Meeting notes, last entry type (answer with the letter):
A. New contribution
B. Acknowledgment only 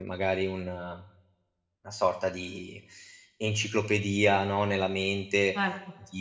B